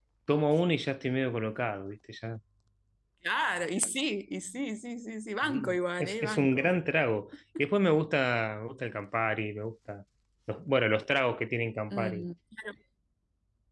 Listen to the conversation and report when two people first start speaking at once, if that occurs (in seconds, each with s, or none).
5.4 s